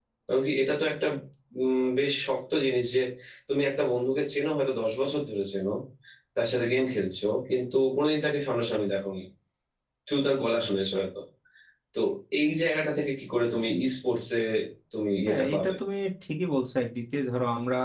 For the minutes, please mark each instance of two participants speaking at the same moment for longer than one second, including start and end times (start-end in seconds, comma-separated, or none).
none